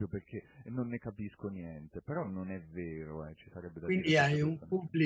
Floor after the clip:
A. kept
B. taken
B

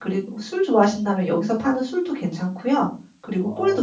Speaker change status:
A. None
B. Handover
B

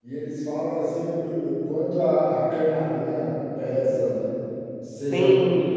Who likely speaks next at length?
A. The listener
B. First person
B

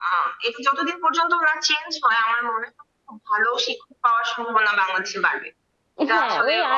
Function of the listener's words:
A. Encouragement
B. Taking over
B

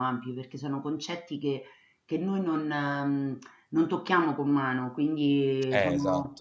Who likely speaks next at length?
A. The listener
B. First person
B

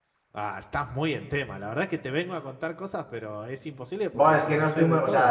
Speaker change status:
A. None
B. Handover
B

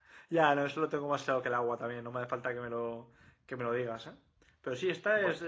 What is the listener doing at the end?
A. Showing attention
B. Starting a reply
A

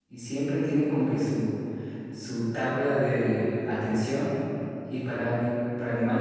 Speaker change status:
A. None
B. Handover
A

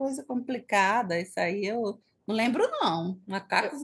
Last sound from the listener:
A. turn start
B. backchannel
B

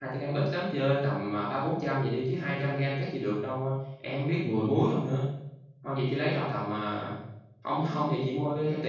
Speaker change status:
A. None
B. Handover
A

